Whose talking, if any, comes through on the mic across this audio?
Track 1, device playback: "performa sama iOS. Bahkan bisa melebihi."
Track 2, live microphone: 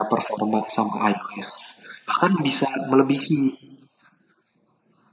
echo only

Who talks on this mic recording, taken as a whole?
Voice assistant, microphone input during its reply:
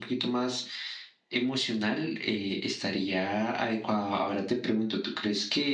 echo only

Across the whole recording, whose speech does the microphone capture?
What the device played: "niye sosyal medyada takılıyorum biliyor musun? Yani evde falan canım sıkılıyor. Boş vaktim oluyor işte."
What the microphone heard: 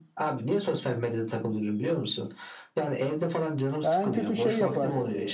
both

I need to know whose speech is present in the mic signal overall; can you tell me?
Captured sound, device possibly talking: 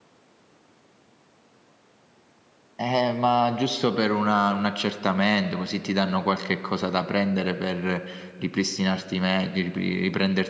user only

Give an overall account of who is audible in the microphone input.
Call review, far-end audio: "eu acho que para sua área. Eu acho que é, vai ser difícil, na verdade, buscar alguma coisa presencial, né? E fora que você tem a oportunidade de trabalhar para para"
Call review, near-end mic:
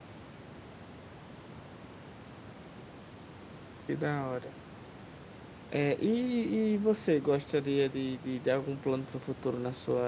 user only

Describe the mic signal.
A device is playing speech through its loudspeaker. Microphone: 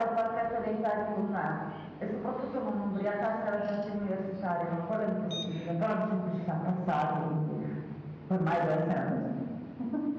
echo only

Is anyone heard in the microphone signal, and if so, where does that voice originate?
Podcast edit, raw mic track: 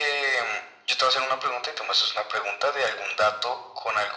echo only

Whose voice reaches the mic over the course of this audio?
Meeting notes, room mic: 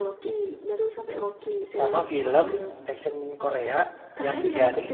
both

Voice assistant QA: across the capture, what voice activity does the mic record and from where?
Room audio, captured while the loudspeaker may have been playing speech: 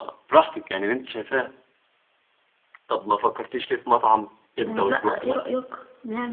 both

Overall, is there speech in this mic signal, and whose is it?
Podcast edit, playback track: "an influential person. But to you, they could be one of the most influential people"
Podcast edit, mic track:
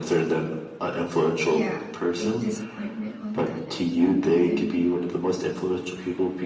both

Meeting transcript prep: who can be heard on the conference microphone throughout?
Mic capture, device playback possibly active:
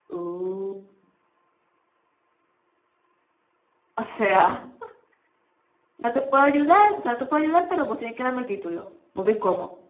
user only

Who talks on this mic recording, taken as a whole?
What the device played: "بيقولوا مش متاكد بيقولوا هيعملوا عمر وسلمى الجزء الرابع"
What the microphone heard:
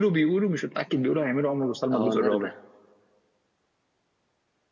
both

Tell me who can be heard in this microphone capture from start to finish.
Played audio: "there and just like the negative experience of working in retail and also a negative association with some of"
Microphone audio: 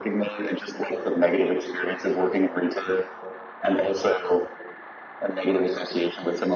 echo only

